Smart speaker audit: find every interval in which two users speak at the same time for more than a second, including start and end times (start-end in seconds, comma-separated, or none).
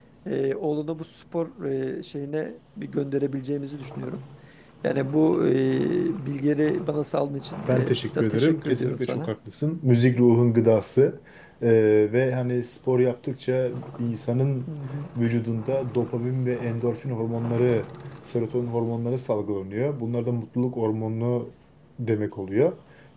7.7-9.3